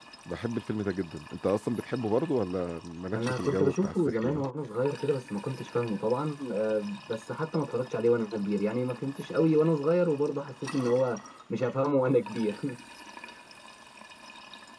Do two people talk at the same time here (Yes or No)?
Yes